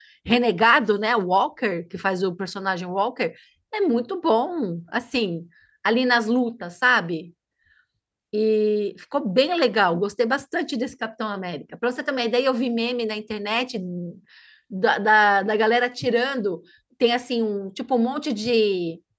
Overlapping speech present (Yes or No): No